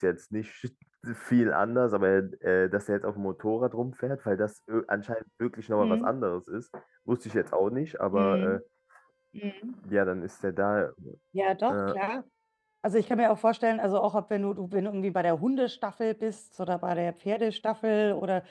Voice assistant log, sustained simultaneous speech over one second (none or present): none